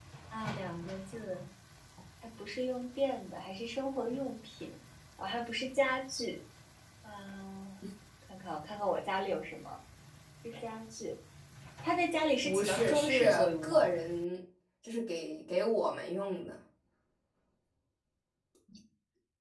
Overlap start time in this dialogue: 12.4 s

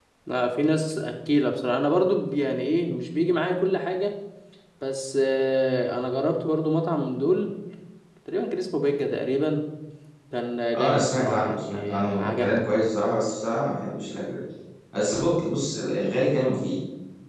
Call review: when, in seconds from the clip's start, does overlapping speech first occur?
10.7 s

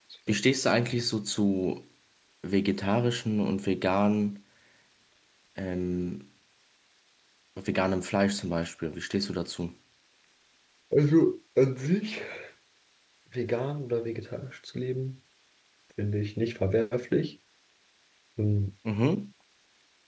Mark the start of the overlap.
none

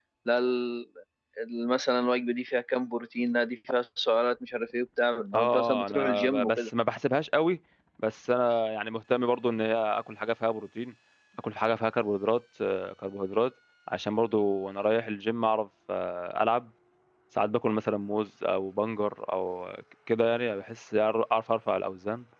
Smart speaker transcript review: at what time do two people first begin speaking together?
5.3 s

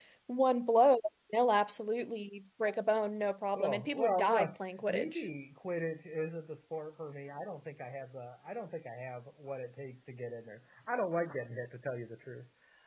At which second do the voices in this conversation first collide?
3.5 s

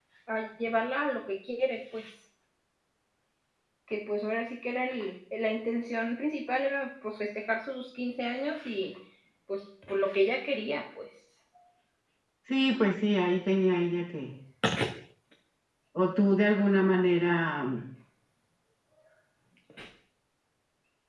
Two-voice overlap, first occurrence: none

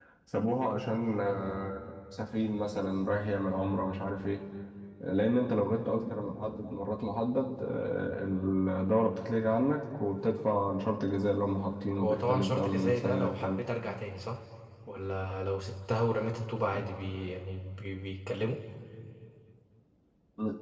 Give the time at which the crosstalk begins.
12.0 s

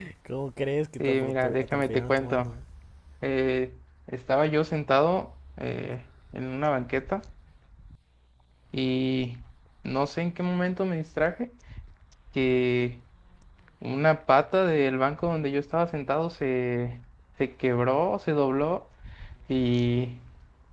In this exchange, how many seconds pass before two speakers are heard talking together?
1.0 s

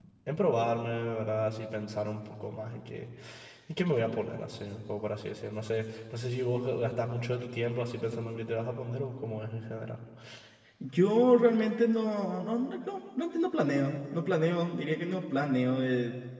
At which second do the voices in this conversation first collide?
none

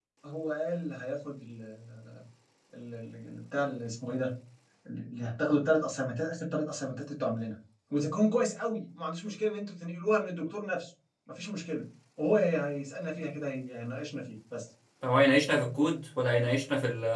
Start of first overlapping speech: none

